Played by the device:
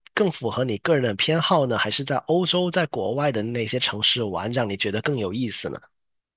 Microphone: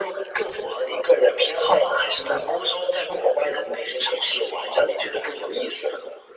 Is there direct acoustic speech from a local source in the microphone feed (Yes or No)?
No